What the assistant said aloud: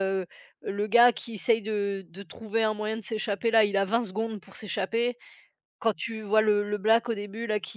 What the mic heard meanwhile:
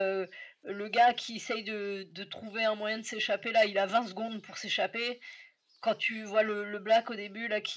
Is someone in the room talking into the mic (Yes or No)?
No